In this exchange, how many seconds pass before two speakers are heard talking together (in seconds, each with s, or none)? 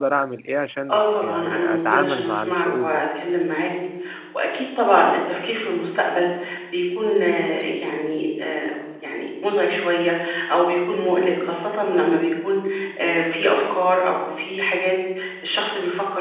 0.9 s